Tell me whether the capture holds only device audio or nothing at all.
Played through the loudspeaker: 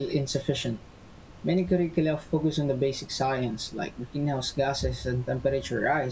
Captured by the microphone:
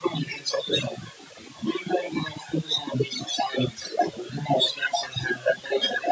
Yes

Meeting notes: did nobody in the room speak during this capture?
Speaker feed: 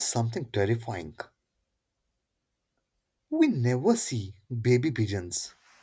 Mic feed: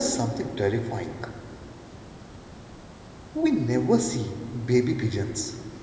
Yes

